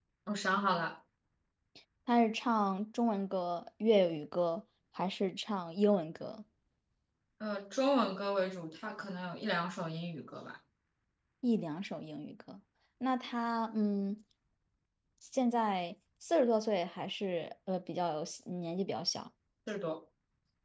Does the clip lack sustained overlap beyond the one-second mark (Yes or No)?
Yes